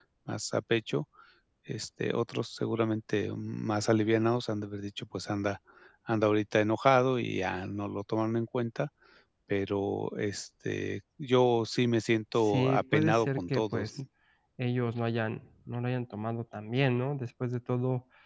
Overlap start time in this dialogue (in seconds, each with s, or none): 12.4 s